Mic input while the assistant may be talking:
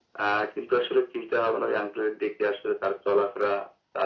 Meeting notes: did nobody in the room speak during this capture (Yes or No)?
Yes